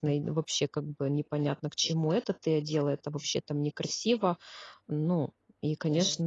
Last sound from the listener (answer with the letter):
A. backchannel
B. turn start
A